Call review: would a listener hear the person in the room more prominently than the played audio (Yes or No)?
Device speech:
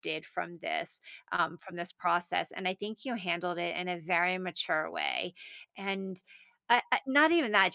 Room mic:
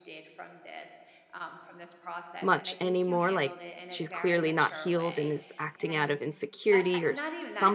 Yes